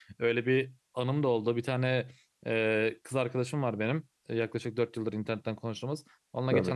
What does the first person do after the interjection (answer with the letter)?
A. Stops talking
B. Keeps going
B